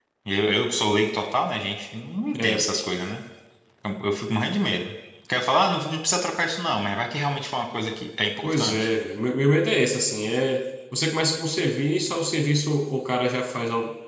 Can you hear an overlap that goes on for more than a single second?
No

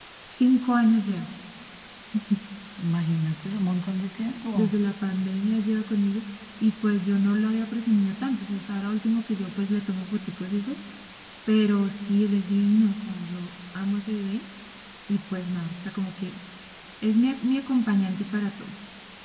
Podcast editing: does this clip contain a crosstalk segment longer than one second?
No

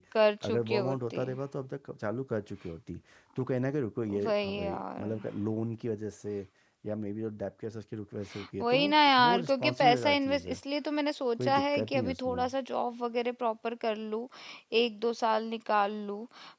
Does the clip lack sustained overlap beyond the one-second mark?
No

